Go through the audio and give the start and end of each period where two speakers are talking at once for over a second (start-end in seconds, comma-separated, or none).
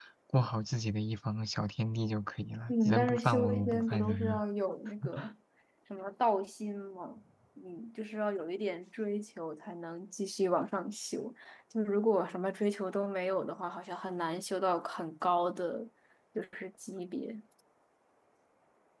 2.7-4.4